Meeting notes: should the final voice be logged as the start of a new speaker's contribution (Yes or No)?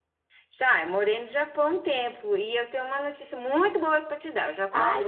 No